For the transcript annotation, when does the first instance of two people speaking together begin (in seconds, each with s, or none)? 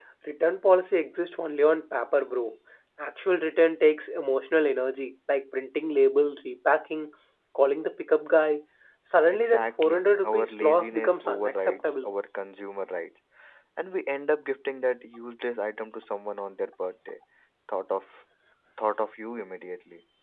9.3 s